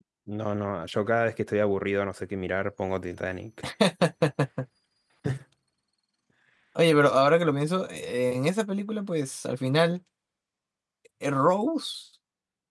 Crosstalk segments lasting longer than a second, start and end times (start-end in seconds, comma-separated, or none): none